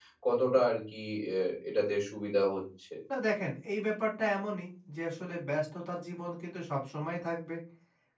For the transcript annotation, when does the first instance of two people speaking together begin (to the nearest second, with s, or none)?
none